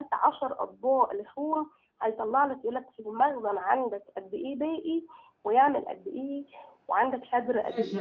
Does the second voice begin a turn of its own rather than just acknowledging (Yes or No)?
Yes